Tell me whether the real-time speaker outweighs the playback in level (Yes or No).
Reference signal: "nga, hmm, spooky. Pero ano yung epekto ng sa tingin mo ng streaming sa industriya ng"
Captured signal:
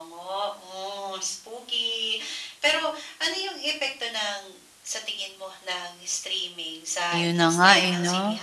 Yes